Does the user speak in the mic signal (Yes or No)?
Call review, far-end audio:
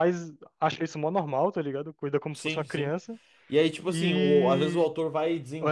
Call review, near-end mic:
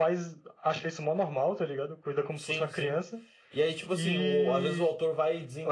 No